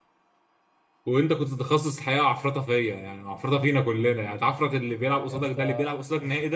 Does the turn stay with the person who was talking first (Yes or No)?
Yes